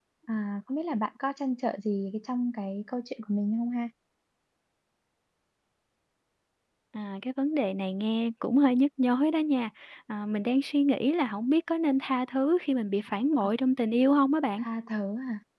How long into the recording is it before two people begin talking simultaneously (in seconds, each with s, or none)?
none